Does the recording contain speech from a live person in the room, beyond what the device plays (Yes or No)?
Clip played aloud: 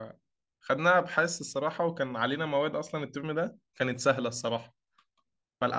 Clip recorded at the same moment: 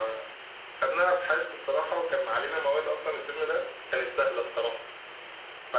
No